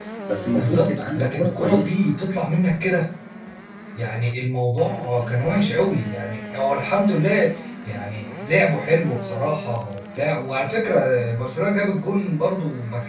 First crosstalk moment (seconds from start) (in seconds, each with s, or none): 0.5 s